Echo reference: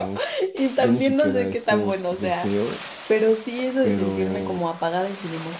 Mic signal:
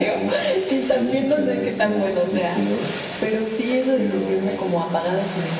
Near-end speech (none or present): none